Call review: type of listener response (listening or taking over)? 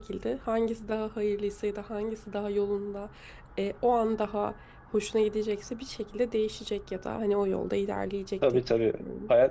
taking over